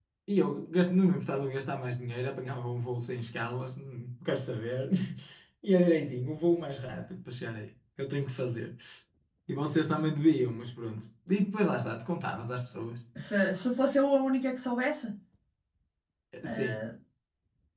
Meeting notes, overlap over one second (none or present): none